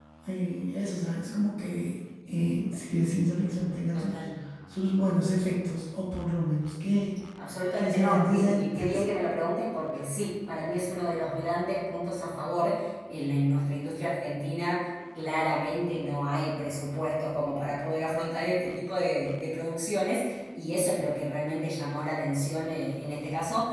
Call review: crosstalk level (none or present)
present